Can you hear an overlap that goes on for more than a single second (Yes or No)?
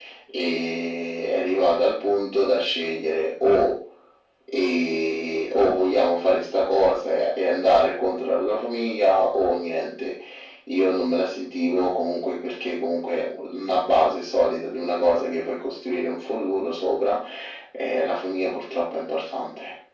No